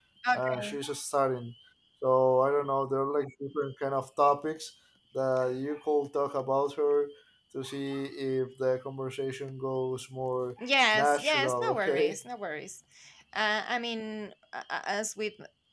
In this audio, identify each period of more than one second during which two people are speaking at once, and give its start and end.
11.0-12.2

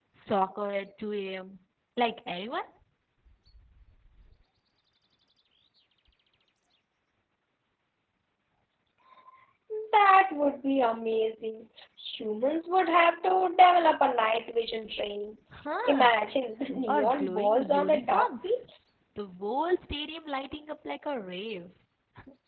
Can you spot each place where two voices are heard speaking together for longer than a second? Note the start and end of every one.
16.9-18.6

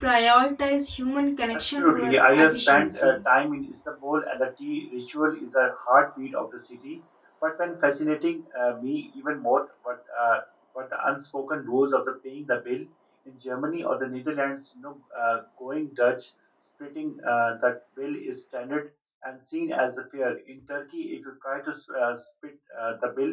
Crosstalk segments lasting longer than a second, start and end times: 1.5-3.1

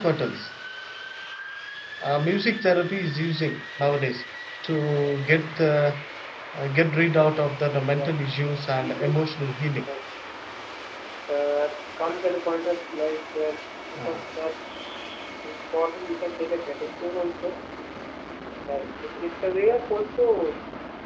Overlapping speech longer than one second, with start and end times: 7.9-9.8

